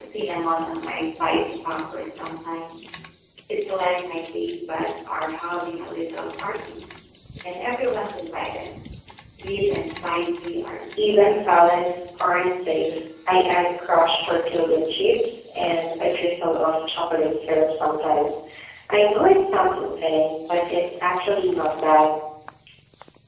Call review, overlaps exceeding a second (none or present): present